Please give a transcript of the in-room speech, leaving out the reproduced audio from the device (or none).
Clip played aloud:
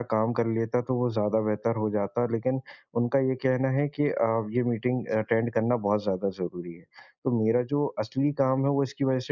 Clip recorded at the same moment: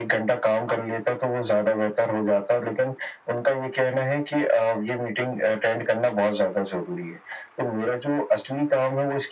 none